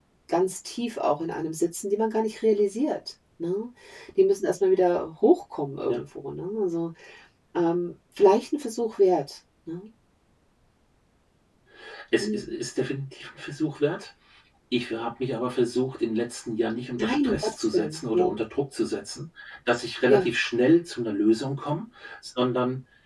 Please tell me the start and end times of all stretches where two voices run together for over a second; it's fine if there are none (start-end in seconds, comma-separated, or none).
17.0-18.3